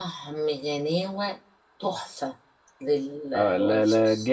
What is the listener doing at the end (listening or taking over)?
taking over